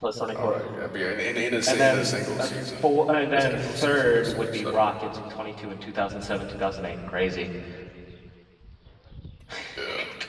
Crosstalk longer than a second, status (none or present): present